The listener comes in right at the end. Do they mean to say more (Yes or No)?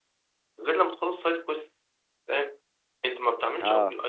No